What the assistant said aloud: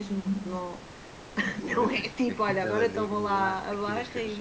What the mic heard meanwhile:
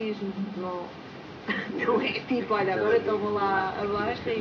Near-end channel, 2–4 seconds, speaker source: echo only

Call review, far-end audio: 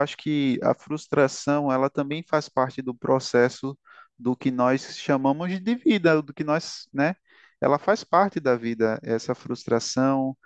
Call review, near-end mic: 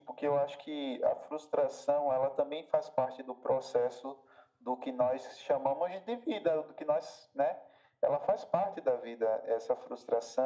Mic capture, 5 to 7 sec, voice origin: echo only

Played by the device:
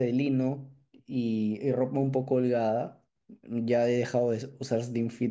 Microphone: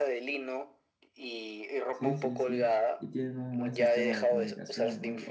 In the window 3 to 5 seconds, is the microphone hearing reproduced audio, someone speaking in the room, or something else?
both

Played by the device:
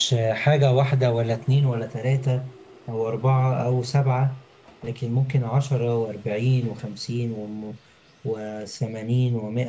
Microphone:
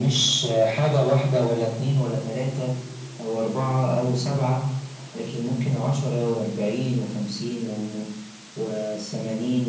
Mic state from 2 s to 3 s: echo only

